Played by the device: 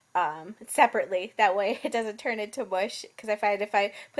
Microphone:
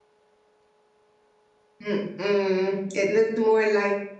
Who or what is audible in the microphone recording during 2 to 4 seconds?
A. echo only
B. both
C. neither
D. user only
D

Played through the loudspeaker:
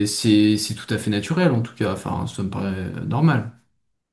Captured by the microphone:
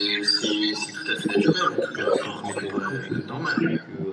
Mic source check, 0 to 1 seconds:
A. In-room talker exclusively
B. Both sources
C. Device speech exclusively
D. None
C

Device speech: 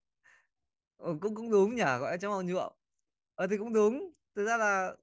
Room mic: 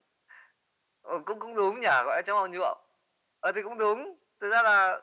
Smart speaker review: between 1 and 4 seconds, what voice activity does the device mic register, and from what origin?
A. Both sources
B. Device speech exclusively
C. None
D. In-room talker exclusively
B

